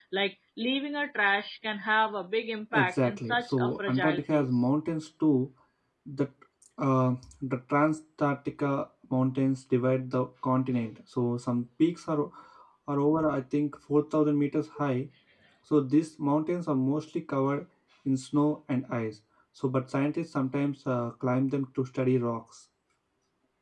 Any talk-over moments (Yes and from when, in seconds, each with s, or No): Yes, from 2.7 s